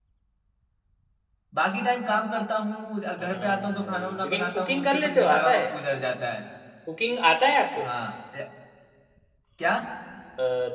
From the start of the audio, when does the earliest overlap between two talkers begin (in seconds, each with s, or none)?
3.2 s